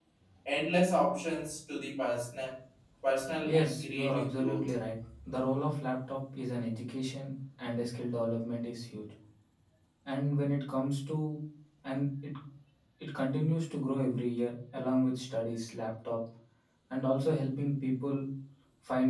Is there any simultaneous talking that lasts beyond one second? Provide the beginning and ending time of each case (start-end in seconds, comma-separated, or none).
3.4-4.7